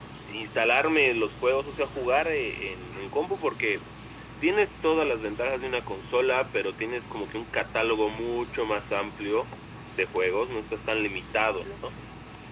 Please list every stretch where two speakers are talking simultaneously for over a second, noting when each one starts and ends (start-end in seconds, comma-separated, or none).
none